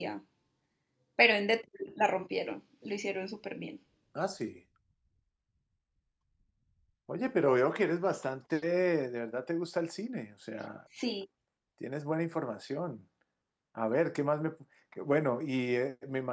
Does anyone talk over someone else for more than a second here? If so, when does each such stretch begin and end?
none

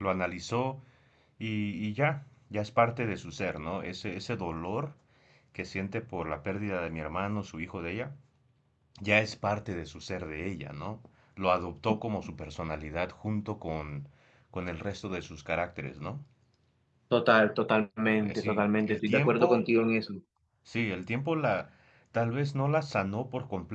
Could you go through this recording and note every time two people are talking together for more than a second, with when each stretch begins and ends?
18.2-19.6

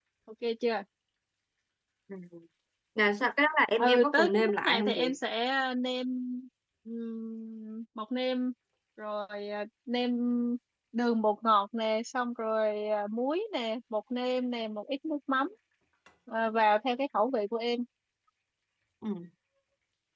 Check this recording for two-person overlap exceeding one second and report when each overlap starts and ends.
3.8-5.2

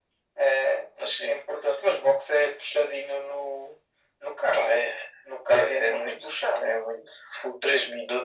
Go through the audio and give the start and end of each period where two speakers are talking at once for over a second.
5.5-6.8

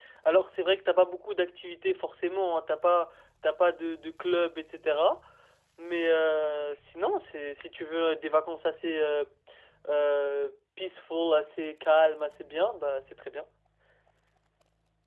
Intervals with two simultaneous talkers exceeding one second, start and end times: none

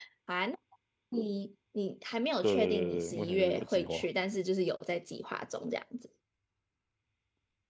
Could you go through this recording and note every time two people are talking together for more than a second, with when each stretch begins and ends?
2.4-4.0

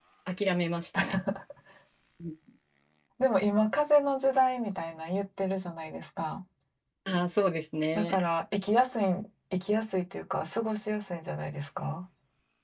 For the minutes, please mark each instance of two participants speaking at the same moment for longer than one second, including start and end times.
none

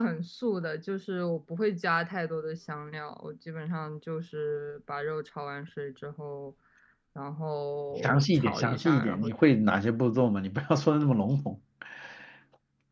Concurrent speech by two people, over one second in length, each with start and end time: 8.0-9.3

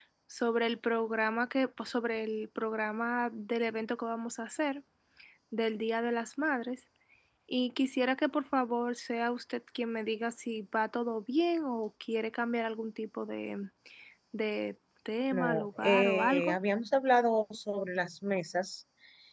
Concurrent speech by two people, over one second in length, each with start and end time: 15.3-16.6

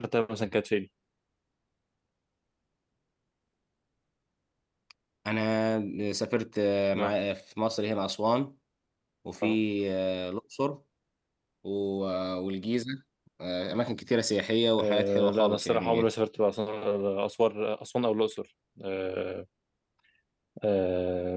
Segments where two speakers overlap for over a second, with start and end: 14.8-16.0

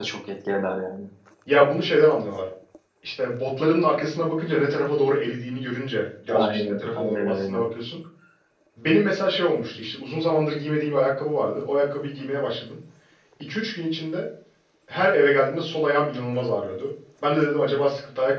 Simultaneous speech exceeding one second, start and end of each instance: 6.3-7.6

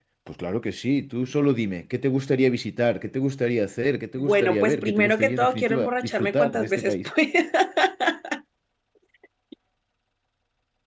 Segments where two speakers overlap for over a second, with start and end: 4.2-7.1

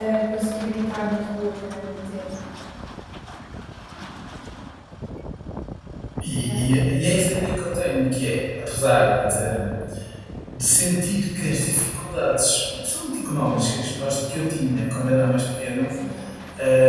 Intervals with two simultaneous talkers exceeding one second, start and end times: none

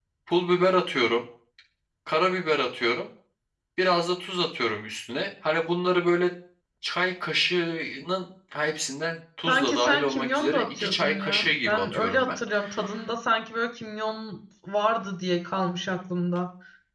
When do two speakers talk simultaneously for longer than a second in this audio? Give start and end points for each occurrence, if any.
9.5-12.4

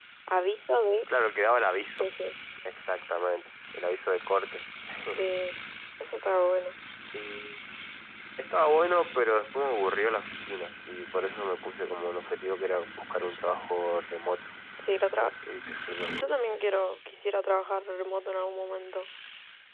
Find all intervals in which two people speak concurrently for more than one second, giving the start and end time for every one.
none

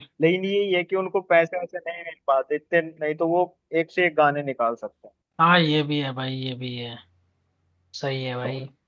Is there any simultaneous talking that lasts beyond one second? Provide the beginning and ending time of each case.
none

